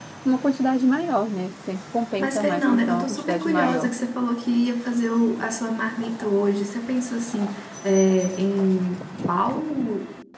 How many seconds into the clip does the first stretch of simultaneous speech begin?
2 s

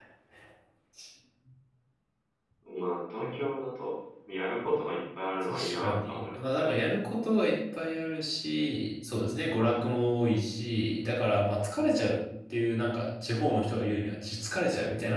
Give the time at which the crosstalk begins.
5 s

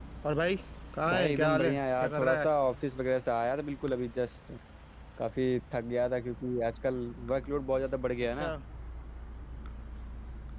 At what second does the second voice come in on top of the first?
1 s

